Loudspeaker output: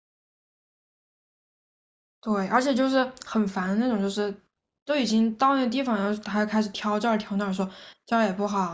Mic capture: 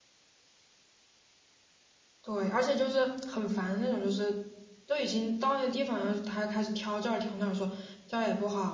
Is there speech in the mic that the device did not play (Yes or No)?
No